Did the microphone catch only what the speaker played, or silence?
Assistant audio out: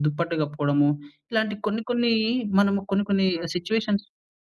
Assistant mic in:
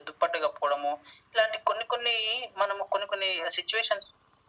Yes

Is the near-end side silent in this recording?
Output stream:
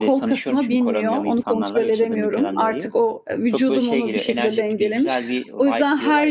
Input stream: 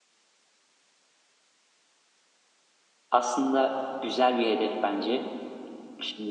No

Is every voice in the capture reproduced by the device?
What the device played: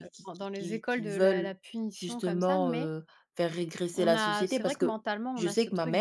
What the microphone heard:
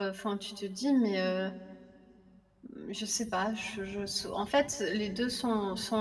No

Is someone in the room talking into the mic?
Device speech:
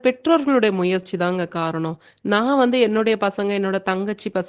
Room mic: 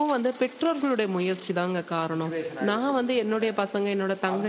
Yes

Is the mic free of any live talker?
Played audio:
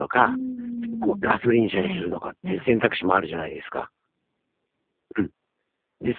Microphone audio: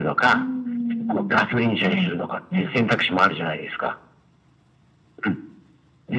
Yes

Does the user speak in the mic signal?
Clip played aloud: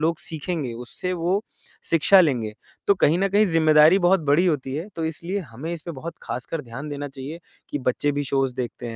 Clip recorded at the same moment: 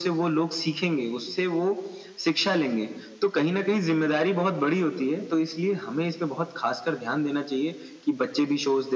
No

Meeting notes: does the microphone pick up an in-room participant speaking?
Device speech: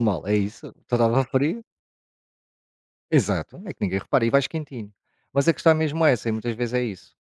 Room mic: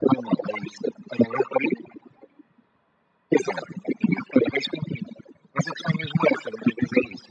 No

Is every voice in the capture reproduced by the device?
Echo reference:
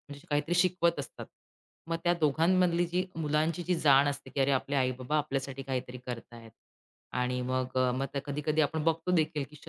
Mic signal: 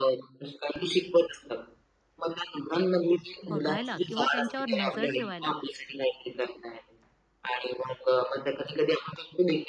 No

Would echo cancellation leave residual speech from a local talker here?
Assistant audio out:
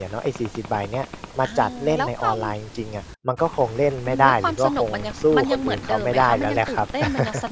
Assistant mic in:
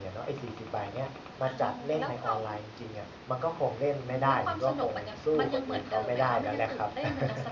No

